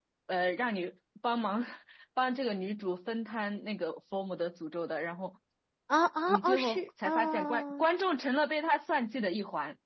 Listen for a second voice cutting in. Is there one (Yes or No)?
Yes